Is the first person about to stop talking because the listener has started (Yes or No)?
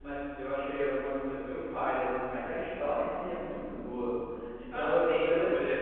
Yes